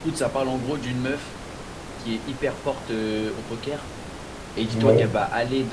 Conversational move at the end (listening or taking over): listening